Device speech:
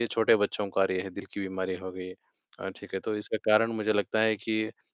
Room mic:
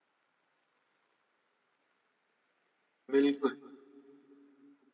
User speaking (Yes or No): Yes